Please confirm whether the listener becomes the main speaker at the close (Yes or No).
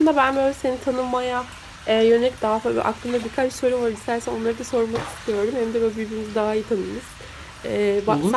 No